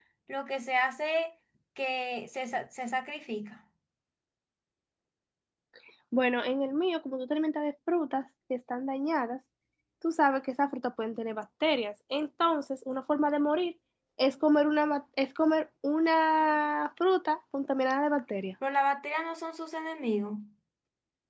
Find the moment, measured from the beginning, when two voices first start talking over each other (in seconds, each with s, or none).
none